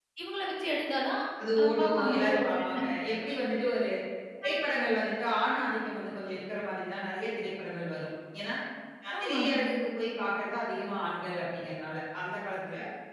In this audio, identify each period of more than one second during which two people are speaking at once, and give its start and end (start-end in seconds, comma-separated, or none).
1.6-2.8